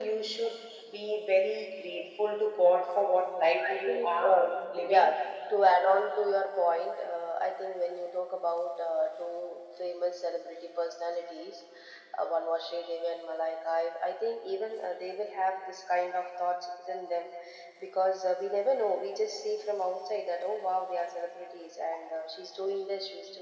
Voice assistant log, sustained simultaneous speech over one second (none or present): present